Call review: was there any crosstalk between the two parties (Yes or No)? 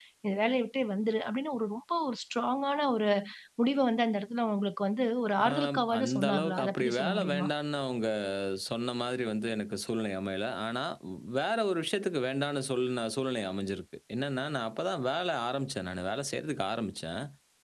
Yes